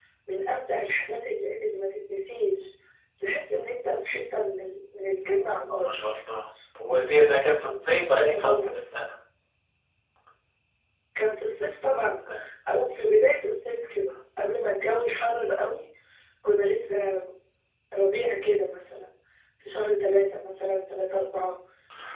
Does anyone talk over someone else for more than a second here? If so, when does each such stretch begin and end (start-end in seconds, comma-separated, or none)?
none